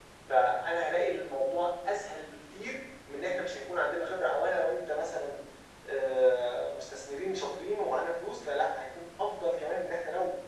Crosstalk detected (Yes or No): No